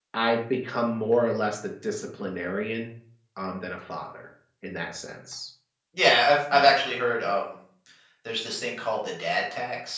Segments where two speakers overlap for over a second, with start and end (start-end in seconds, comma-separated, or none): none